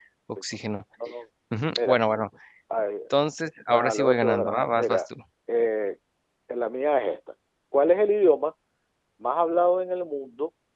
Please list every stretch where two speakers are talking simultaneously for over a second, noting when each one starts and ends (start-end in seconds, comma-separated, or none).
3.7-5.0